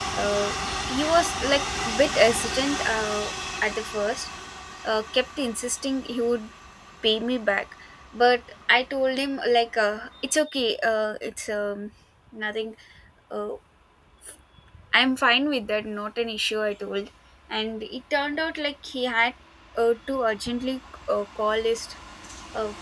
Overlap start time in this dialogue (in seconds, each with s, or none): none